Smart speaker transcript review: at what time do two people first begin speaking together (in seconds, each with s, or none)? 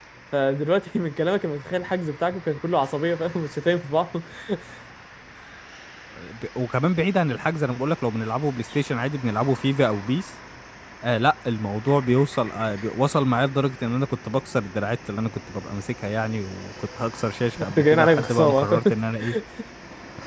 17.6 s